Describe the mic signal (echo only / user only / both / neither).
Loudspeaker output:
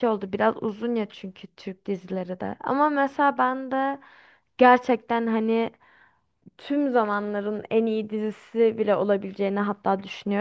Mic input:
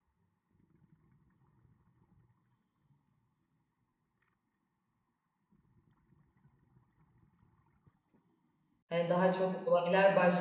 user only